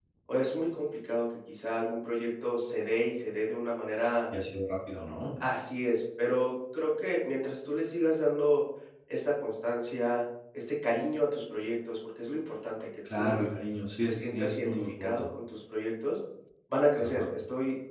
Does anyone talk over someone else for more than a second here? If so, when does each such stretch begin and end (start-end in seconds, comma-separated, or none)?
14.0-15.3